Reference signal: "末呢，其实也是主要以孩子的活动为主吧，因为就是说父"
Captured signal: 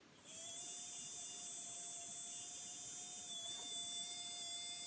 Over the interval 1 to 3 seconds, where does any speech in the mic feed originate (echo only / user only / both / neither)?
neither